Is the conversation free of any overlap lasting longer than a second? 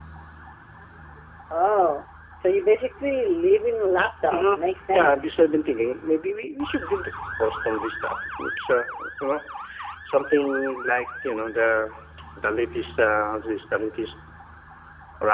Yes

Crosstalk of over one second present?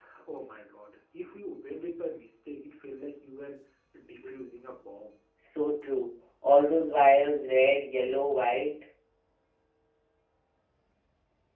No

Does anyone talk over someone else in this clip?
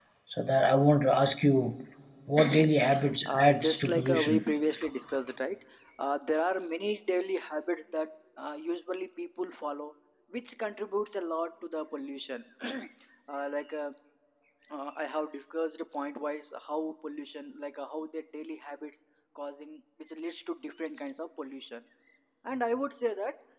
Yes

